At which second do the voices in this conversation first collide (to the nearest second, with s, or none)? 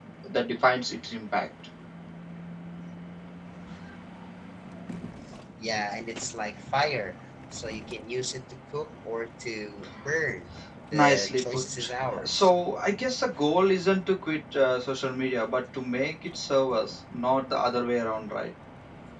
11 s